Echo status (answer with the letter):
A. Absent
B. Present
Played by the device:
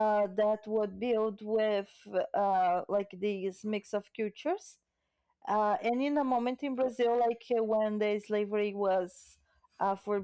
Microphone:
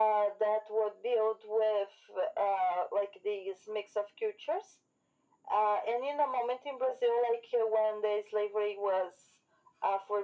B